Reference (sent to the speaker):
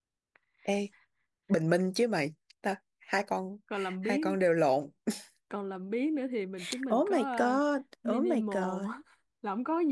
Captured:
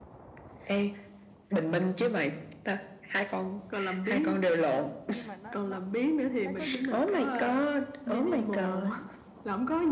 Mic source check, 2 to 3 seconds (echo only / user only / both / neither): echo only